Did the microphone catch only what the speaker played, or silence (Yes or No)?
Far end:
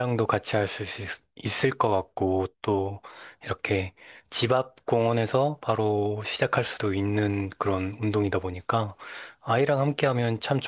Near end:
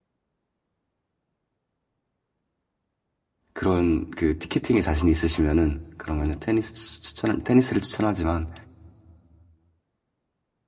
No